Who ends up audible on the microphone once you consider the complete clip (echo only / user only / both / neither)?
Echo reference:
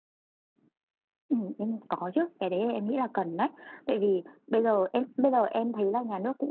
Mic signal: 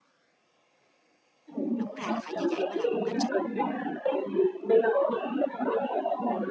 both